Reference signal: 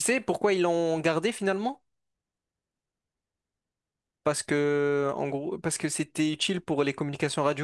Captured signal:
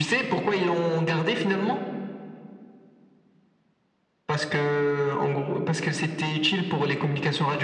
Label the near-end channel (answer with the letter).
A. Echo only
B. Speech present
A